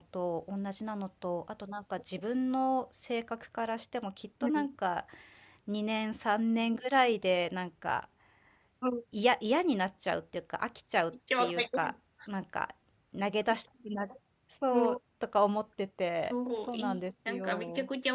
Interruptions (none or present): present